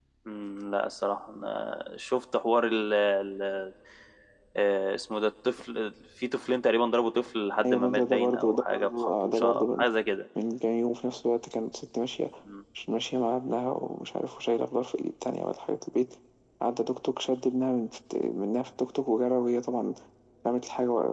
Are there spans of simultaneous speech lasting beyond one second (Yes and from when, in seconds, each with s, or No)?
Yes, from 7.6 s